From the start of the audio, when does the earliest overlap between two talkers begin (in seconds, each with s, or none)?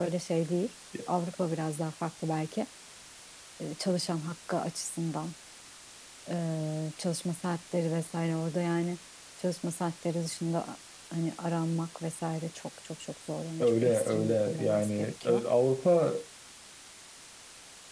13.6 s